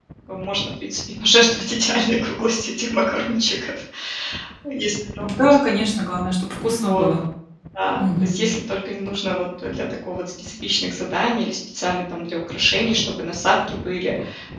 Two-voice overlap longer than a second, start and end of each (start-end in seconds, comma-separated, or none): none